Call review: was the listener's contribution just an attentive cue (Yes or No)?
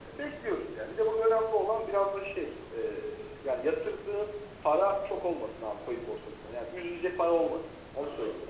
No